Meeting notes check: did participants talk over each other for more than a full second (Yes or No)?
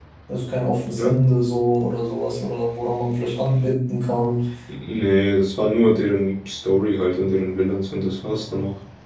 No